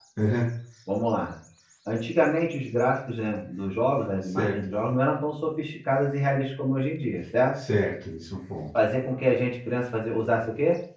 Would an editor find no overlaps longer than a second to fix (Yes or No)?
Yes